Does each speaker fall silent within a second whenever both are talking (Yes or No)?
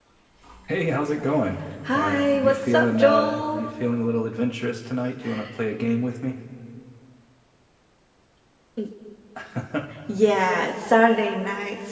No